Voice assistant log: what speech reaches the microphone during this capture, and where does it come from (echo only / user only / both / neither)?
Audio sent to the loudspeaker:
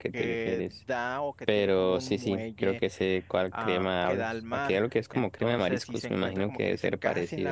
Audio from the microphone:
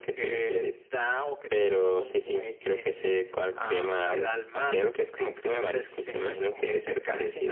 echo only